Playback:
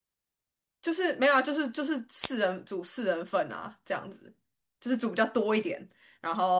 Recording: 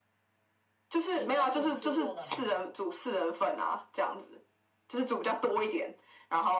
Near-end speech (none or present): present